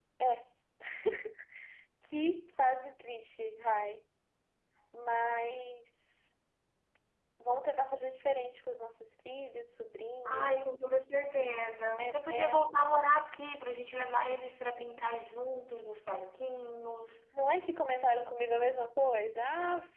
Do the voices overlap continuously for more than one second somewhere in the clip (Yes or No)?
No